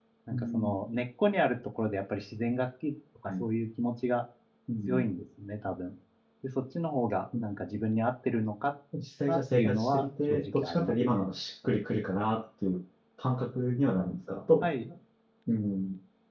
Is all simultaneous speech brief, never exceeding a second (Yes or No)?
No